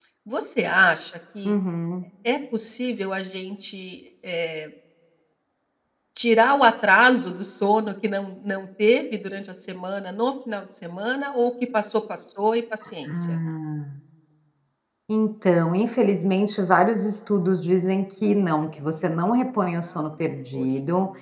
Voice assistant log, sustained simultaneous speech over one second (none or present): none